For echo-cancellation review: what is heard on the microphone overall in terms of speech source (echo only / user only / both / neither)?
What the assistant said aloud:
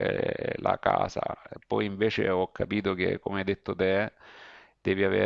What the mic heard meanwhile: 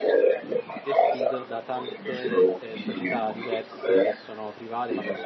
both